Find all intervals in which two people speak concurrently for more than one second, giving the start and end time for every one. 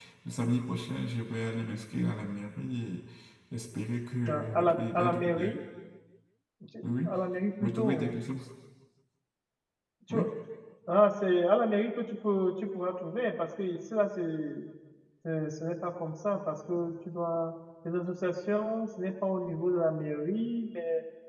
4.3-5.6

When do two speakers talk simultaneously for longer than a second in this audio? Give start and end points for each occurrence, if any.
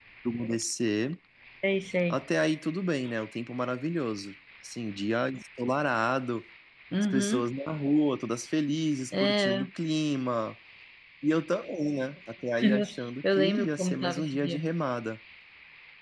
13.3-14.6

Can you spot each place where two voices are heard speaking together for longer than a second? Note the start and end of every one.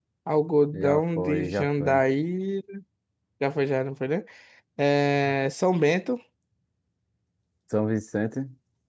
0.7-2.0

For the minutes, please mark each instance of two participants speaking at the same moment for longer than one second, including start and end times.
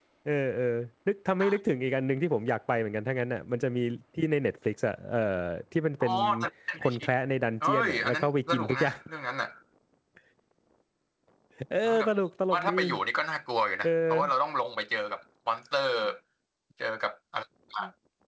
7.6-9.0

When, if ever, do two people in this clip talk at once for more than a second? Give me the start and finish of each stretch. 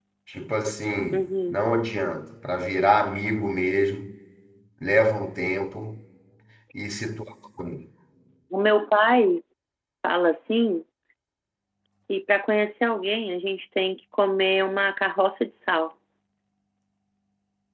none

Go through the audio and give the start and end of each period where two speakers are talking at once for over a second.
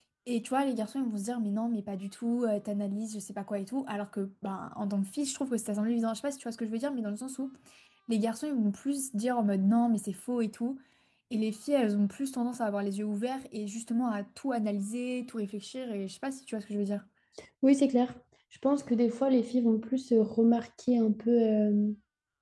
none

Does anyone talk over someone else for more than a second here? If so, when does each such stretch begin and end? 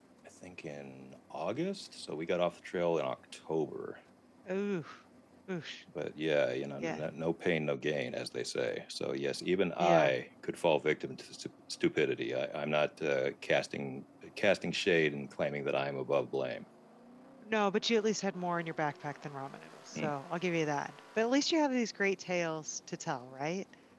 none

